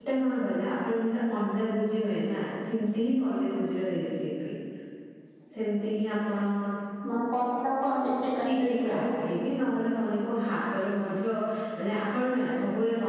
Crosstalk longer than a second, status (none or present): none